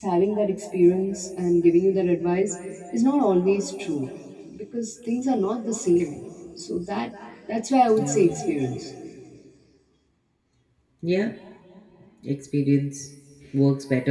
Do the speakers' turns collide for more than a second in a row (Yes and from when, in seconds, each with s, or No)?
No